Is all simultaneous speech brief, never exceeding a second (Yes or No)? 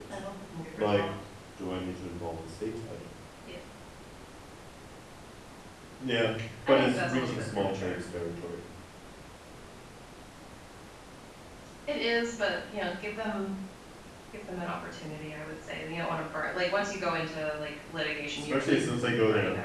No